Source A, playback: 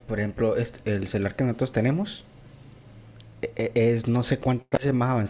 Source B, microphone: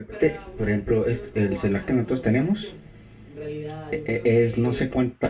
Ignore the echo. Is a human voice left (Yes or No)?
Yes